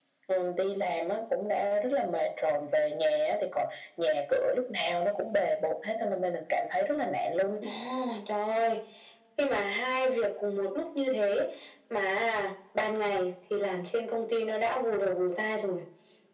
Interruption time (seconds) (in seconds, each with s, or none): none